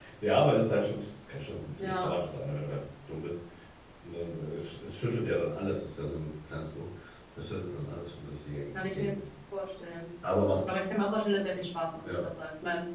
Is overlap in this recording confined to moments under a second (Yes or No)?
Yes